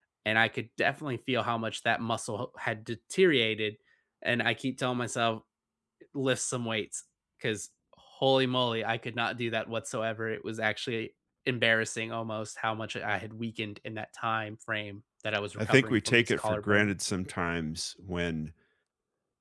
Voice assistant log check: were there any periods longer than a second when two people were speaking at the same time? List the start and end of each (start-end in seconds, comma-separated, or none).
15.6-16.9